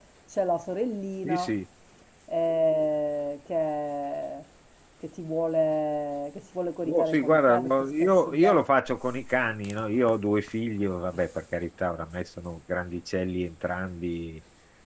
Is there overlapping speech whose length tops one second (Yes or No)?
Yes